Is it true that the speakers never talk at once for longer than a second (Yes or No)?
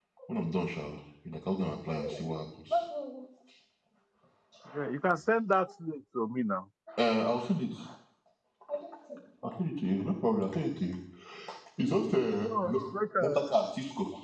Yes